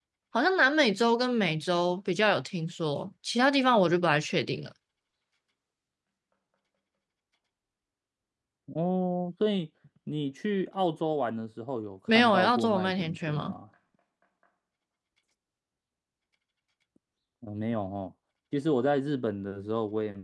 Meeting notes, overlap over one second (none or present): present